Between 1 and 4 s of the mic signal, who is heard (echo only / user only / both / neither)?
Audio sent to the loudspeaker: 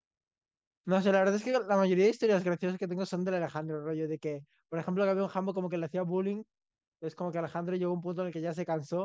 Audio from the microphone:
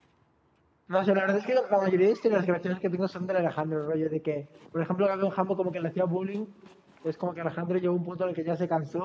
echo only